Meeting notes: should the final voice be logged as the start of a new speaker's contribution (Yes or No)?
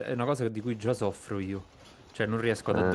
No